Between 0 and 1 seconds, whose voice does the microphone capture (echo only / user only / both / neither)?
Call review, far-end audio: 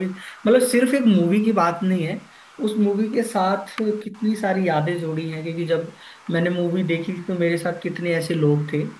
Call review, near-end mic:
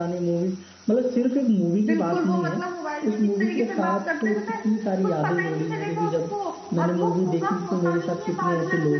echo only